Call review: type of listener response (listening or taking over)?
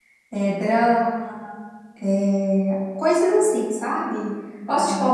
listening